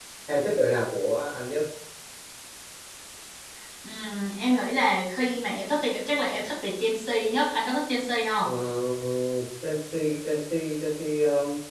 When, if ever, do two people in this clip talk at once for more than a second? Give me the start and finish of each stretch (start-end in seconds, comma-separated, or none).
none